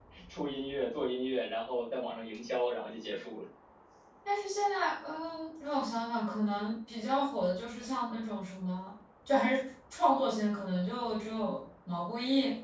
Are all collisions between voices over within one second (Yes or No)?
Yes